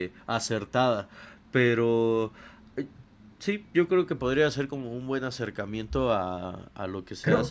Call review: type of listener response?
taking over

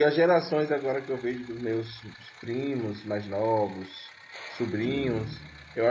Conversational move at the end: listening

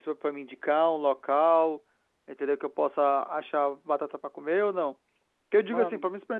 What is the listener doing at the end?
listening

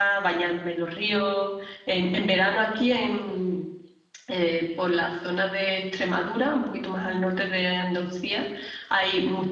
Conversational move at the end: listening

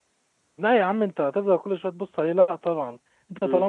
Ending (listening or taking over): listening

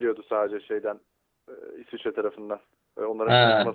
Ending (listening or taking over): listening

